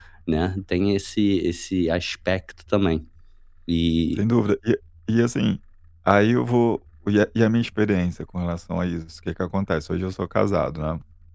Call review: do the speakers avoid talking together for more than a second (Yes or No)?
Yes